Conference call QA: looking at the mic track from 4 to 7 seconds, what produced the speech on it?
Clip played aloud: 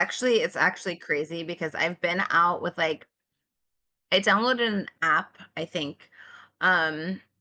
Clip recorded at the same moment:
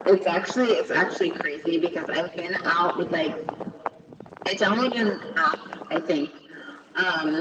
echo only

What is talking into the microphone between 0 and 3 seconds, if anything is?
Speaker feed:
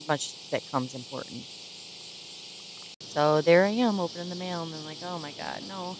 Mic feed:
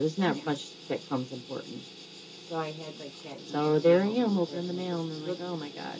both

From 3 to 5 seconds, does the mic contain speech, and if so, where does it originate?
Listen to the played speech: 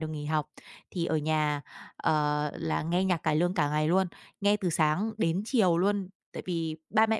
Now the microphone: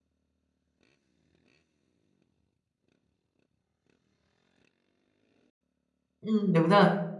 neither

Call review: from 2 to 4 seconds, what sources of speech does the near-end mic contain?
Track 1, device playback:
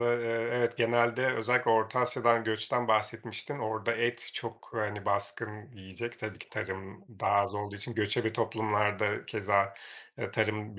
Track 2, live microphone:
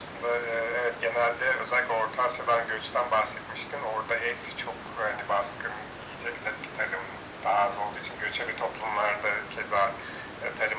echo only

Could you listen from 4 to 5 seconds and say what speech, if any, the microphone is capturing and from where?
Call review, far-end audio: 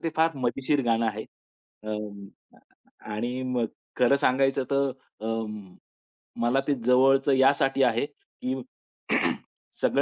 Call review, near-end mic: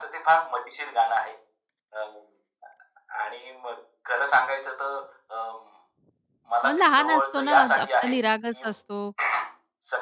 echo only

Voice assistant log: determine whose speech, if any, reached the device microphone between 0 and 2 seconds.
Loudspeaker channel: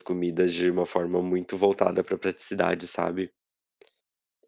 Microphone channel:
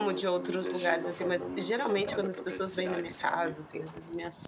both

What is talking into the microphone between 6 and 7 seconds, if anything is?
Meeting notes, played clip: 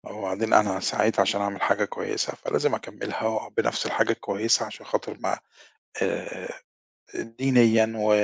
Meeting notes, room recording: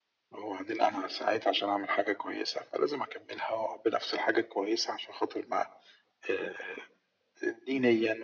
echo only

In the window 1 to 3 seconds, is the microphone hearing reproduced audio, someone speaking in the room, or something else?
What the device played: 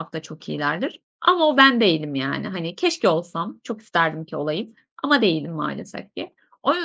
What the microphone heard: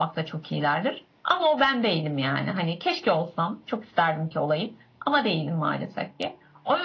echo only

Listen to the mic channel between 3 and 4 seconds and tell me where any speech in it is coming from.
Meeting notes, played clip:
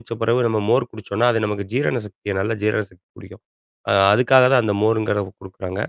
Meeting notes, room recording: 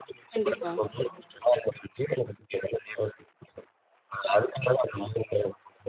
echo only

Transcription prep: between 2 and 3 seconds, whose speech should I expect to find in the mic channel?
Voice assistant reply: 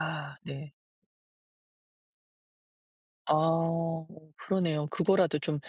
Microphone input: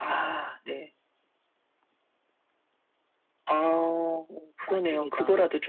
neither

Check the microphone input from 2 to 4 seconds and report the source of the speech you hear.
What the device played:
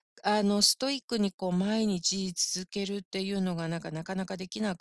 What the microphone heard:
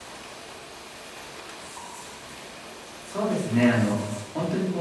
user only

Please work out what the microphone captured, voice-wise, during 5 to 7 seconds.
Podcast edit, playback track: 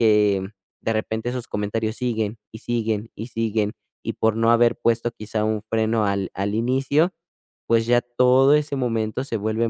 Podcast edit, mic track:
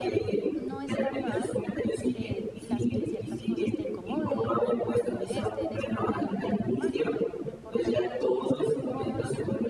both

